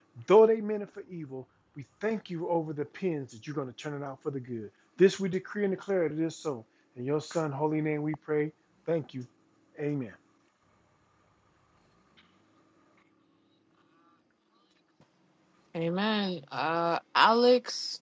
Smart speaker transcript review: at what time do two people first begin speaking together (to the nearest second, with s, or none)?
none